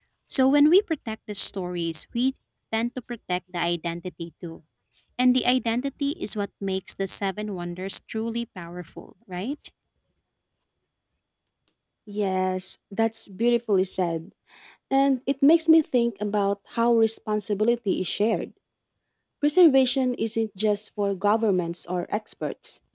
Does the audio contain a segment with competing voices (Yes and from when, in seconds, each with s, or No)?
No